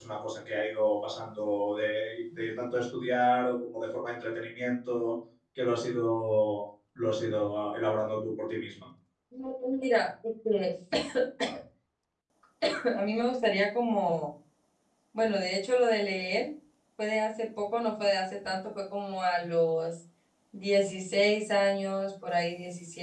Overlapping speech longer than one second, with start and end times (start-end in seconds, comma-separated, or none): none